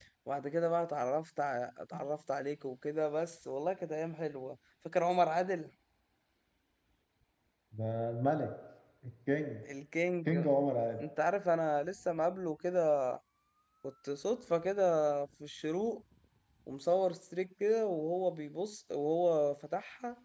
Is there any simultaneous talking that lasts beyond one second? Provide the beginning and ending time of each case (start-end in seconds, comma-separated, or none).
none